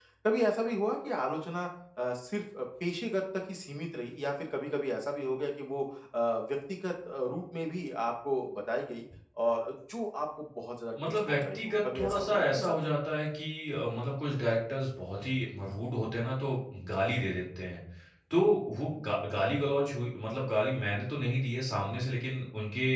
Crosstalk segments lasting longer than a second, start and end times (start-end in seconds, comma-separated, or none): 11.1-12.8